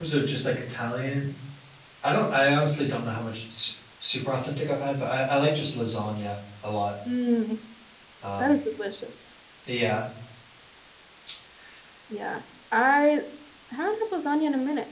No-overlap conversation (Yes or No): Yes